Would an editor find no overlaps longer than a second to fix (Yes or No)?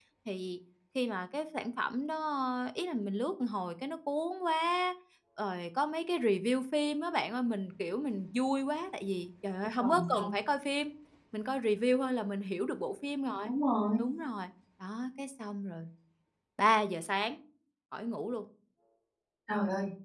Yes